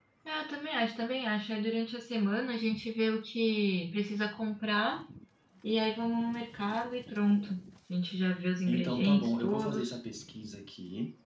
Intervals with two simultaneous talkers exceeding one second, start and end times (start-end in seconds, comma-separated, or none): 8.7-10.0